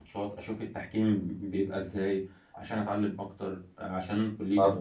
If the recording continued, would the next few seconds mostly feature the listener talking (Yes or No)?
Yes